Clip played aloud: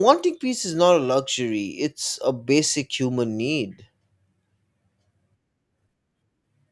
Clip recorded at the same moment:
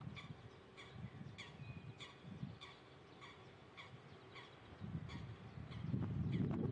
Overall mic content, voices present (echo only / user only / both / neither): neither